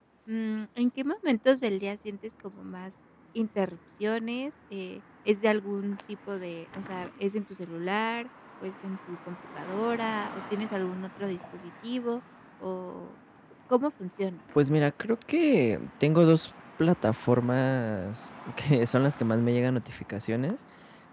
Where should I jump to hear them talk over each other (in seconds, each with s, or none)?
none